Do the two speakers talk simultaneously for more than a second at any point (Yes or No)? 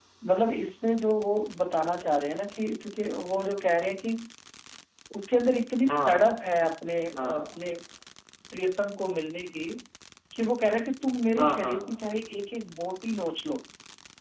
No